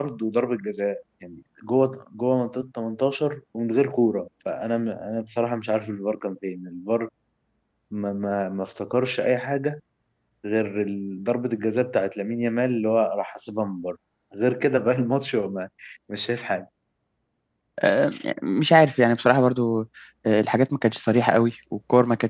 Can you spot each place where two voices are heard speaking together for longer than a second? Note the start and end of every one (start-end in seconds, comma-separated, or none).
none